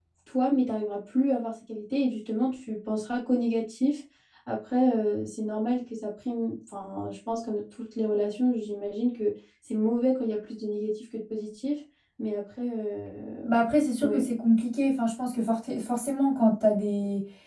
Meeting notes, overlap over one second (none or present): none